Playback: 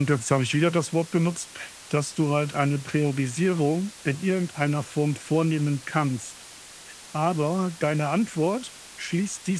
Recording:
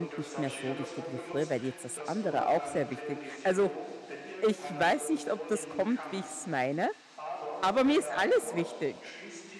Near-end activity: present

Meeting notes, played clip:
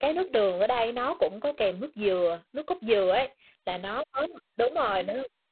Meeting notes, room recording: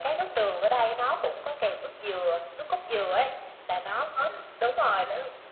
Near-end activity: present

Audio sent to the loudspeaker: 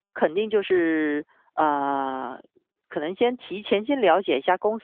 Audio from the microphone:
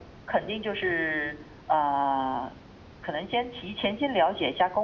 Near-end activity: none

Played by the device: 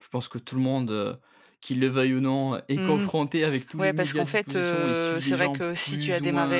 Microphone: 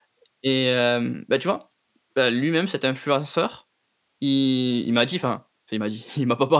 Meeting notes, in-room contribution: present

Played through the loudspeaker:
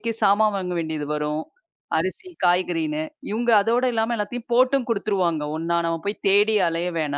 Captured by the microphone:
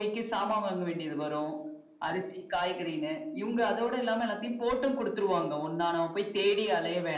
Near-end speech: none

